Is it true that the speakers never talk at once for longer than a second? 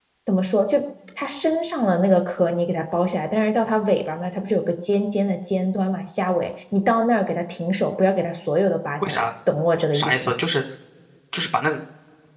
Yes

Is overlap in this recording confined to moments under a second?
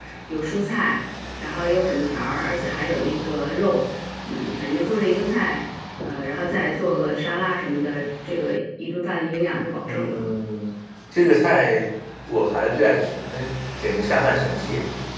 Yes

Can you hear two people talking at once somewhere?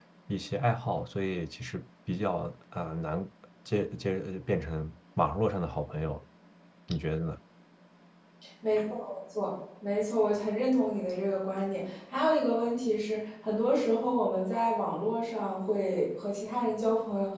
No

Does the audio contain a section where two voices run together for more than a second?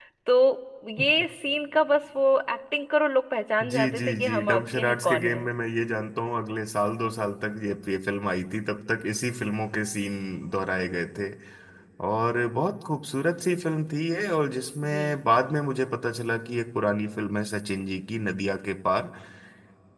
Yes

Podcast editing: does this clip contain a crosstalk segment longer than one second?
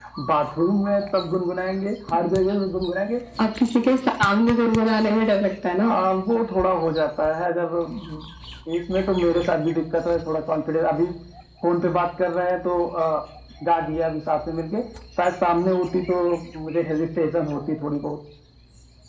No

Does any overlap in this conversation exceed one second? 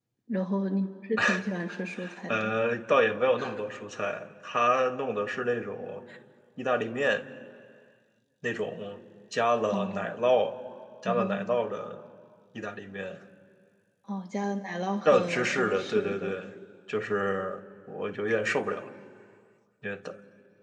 Yes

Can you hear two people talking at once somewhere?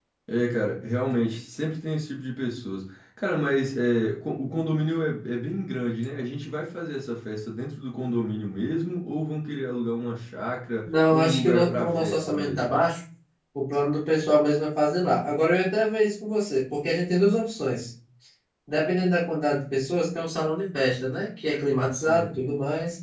Yes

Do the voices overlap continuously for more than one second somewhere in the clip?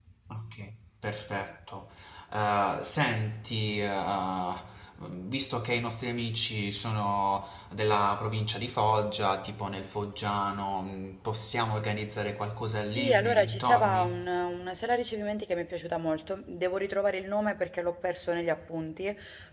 Yes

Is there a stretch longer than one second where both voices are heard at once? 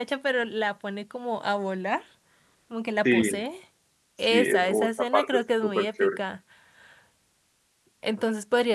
Yes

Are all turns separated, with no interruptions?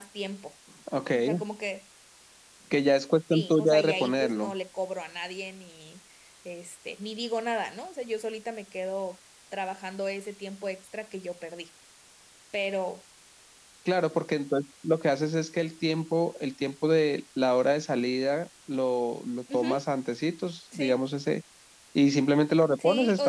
No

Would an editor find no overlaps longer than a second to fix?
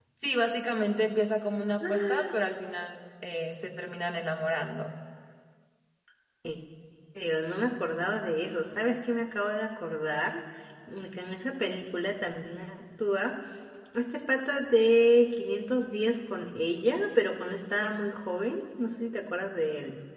Yes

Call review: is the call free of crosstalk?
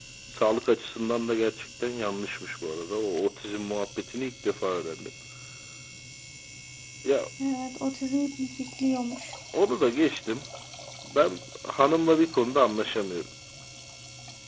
Yes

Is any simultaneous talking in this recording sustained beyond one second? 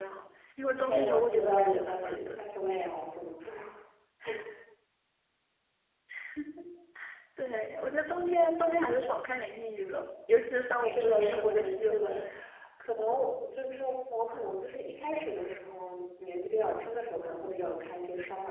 Yes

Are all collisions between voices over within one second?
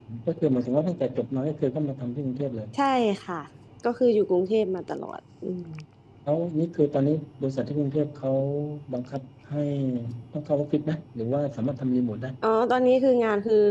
Yes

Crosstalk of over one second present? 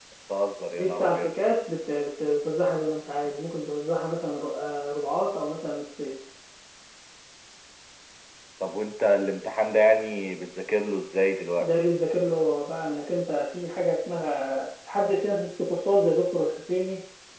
No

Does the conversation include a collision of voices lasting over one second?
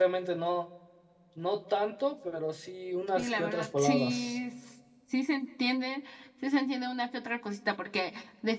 Yes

